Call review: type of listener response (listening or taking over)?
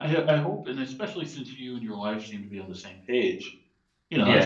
taking over